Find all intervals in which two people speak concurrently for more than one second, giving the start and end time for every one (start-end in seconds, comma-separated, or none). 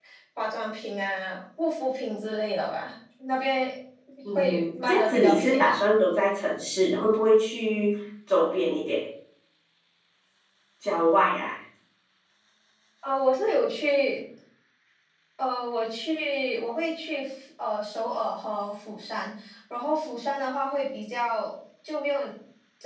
4.4-5.9